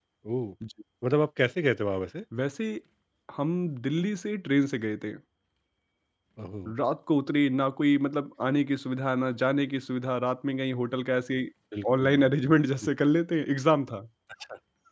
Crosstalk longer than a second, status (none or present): none